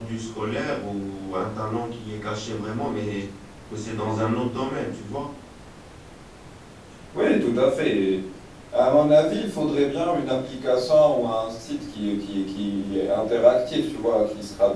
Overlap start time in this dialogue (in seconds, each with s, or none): none